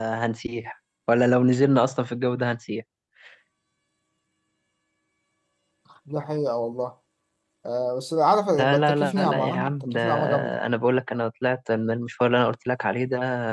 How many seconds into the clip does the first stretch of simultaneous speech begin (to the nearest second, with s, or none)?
9 s